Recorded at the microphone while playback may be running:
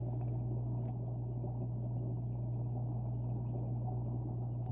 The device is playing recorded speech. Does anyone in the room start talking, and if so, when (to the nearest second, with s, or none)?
none